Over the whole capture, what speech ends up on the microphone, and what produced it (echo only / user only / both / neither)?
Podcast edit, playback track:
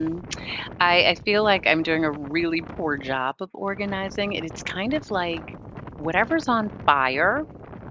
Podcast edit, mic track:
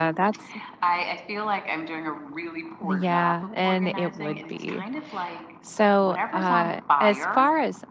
both